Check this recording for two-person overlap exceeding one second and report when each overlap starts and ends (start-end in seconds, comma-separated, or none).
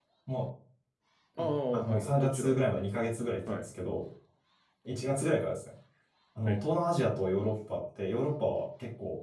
1.4-2.7